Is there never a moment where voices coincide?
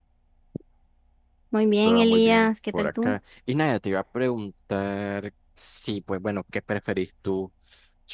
No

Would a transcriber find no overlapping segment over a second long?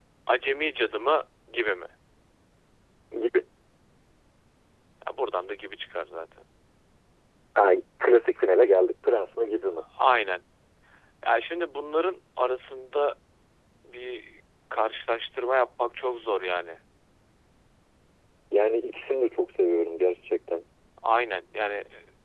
Yes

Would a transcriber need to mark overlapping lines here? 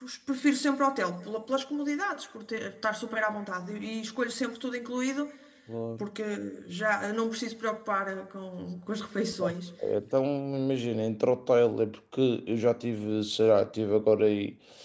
No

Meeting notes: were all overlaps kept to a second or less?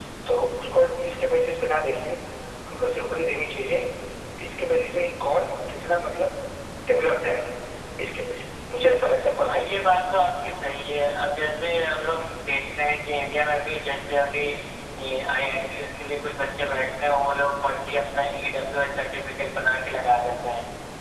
Yes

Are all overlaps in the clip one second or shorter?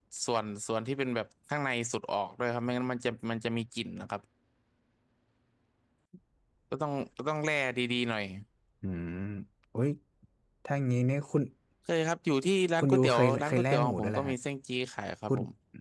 No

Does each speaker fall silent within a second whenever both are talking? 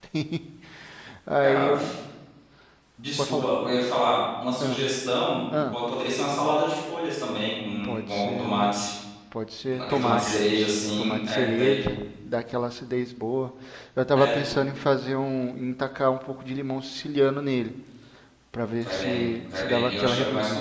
No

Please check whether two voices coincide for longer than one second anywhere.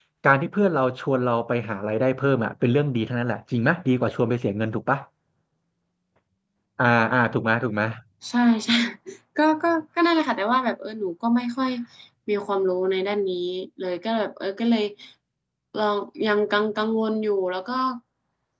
No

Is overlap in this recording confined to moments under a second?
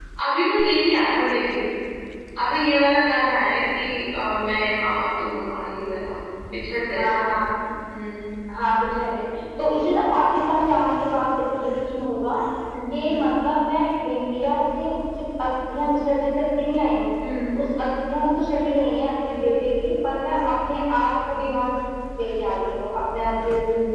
Yes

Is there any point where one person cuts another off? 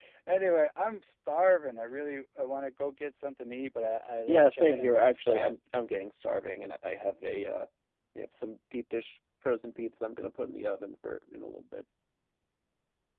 Yes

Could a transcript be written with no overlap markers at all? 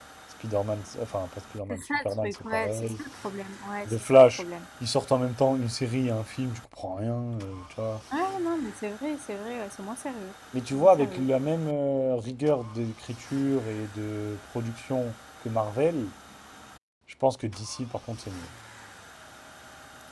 No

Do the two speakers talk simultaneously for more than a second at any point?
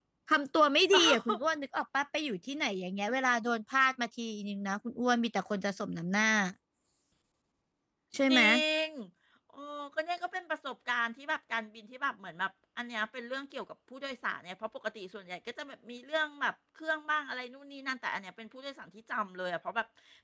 No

